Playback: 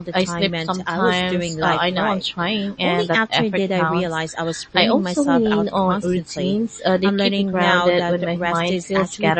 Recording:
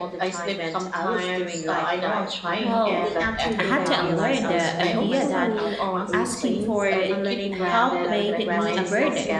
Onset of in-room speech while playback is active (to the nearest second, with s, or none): 3 s